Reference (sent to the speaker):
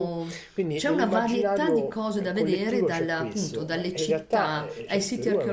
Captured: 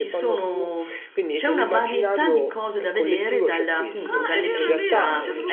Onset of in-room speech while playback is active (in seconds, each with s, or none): 4.0 s